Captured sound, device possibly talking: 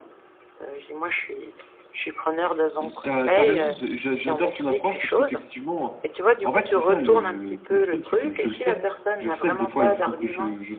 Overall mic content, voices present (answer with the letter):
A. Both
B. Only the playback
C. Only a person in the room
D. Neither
A